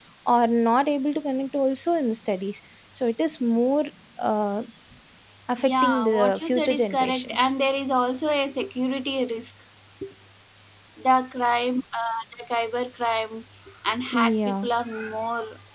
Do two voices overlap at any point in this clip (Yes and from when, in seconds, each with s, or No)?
Yes, from 5.6 s